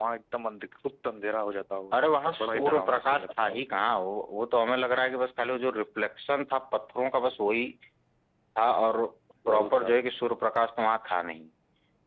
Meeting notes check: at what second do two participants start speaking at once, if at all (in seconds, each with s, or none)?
2.4 s